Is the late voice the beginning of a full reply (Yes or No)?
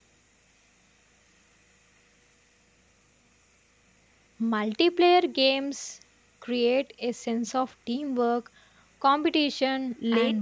Yes